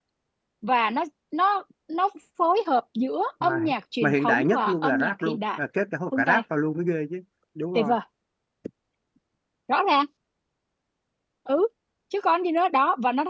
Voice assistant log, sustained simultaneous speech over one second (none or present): present